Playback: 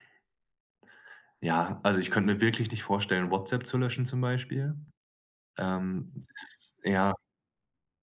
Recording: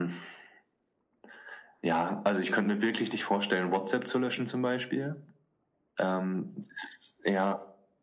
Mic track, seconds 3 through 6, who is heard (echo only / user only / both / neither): echo only